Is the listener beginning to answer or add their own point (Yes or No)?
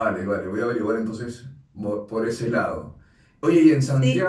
No